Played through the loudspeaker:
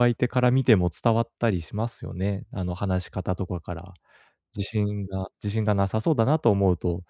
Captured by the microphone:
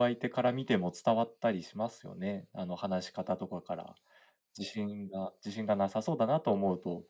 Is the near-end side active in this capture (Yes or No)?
No